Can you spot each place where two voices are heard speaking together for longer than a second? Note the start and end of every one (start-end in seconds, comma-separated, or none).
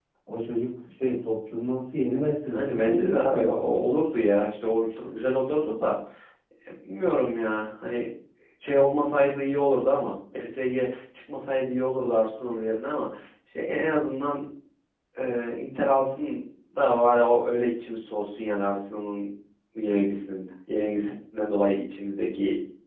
2.5-3.8